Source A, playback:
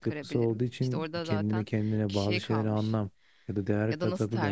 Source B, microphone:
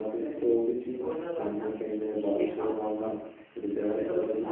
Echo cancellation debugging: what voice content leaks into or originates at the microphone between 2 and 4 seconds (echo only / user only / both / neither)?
echo only